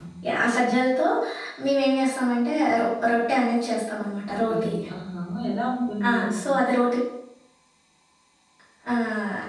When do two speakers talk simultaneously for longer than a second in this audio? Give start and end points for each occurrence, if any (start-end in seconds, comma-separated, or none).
none